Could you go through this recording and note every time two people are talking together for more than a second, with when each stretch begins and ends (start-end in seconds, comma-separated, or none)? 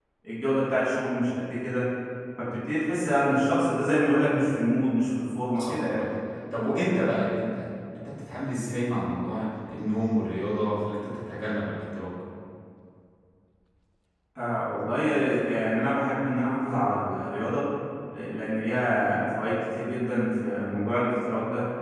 none